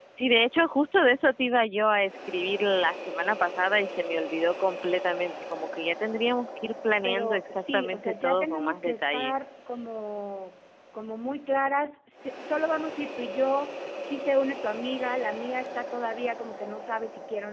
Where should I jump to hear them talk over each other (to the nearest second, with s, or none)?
7 s